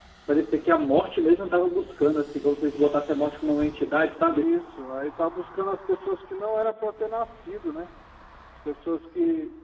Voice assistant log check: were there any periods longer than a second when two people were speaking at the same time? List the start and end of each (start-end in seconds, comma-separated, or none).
none